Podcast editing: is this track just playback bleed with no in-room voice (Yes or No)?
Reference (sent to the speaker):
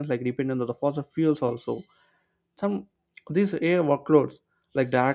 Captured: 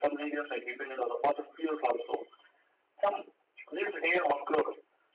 Yes